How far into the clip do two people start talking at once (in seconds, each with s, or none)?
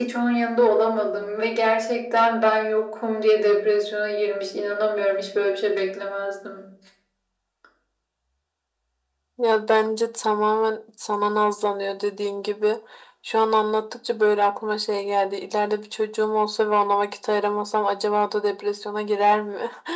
none